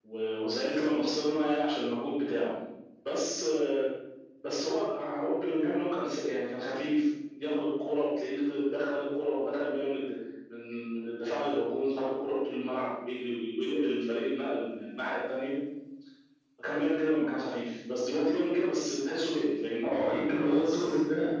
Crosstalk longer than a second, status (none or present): none